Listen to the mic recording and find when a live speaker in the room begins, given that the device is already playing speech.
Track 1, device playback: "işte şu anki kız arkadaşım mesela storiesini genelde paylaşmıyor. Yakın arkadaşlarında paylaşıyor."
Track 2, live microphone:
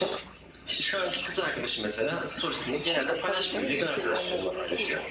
3 s

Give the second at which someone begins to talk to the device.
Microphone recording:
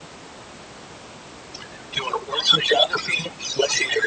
none

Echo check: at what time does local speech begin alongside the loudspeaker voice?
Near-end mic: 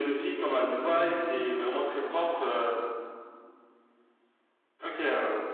1 s

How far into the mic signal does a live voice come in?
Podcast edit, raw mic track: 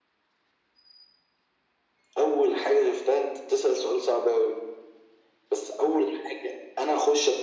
none

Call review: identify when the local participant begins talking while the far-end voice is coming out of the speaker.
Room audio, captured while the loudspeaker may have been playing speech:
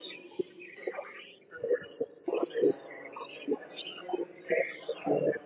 none

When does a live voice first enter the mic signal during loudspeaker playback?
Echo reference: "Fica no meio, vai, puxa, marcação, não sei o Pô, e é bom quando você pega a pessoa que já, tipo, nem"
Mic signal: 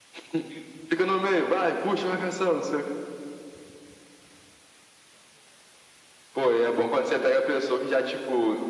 none

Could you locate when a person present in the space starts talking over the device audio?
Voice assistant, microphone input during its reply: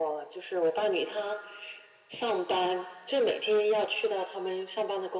none

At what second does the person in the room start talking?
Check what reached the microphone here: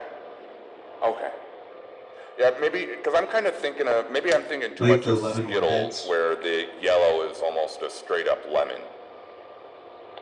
5 s

